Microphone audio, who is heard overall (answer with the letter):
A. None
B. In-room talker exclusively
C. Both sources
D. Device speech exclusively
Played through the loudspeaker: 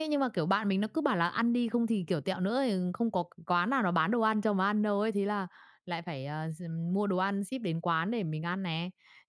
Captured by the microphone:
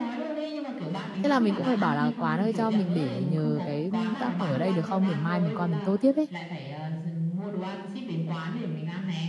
C